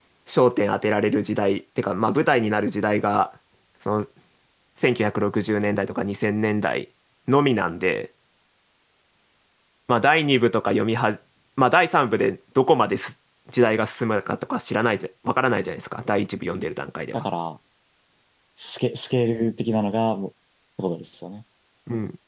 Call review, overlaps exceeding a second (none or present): none